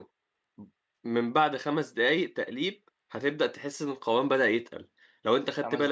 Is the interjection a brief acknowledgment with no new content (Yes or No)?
Yes